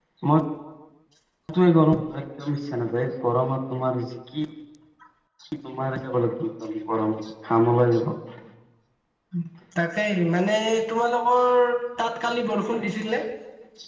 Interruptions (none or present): none